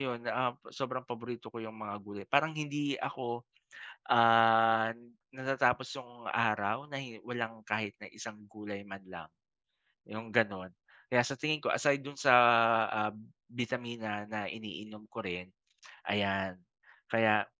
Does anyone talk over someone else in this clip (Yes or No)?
No